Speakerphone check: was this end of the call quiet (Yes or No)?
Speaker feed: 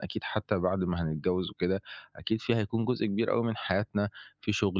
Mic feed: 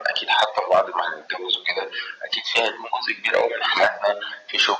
Yes